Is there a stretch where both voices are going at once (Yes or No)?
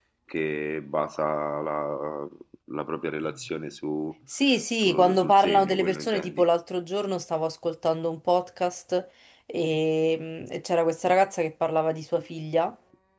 Yes